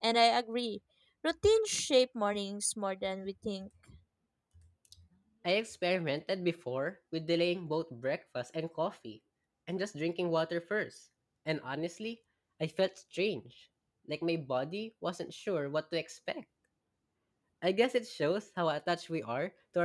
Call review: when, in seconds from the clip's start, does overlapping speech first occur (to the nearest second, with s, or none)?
none